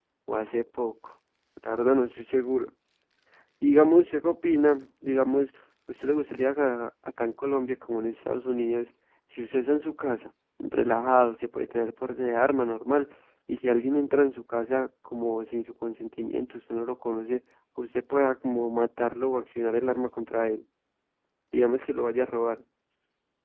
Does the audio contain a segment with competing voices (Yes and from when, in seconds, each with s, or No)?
No